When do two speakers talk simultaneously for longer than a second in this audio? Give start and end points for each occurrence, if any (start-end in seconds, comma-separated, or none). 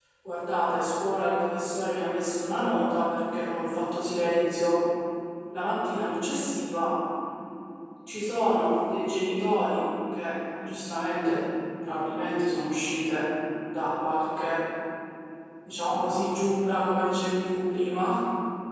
none